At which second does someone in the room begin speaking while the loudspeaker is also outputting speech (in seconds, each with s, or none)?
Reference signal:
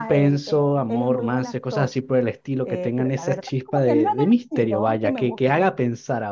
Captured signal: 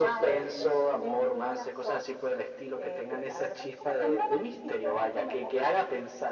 none